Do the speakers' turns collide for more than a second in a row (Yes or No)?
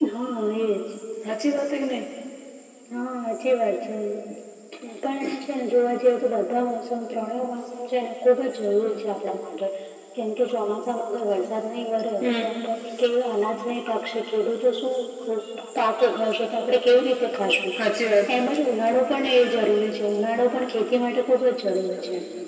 No